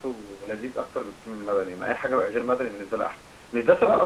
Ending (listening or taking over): listening